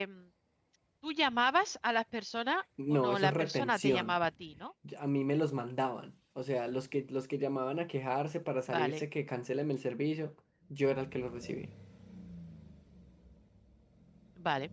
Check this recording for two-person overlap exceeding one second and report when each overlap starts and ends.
2.9-4.2

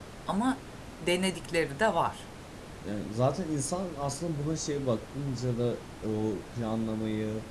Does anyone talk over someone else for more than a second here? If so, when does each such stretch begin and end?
none

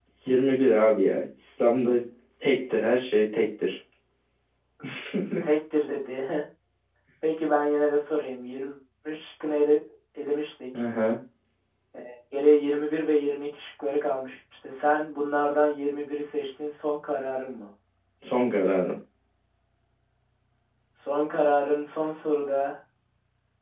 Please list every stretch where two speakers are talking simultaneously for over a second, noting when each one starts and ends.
none

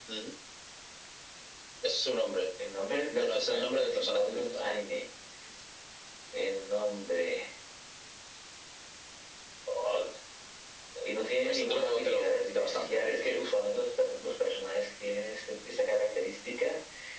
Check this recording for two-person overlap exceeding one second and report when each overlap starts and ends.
3.1-4.7, 11.5-13.1

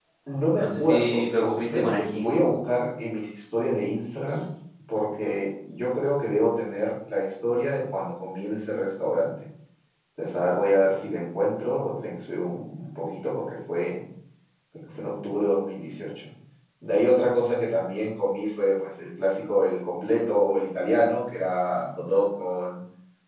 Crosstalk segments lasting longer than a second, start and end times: 0.6-2.2

